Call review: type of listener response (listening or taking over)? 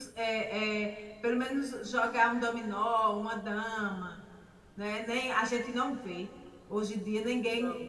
listening